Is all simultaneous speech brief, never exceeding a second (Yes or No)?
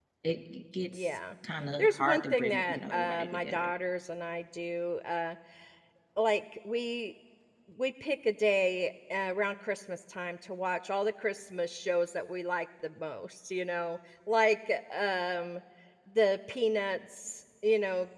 No